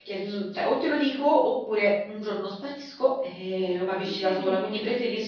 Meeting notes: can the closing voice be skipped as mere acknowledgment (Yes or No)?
Yes